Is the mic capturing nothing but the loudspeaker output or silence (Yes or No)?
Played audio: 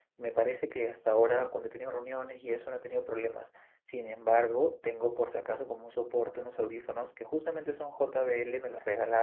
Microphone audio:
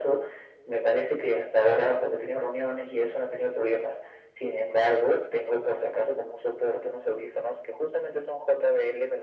Yes